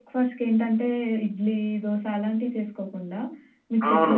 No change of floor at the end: No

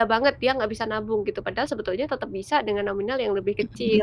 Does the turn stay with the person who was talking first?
No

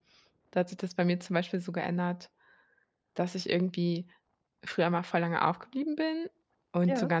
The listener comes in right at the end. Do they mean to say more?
No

